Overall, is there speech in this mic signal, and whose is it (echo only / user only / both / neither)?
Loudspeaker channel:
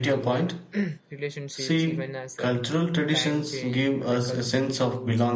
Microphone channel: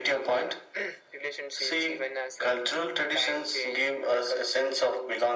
echo only